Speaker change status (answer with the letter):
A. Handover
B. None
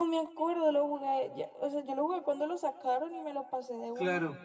A